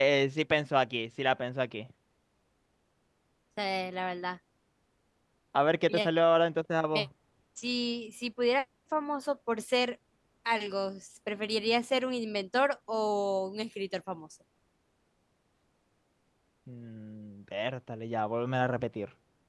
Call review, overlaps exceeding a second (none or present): none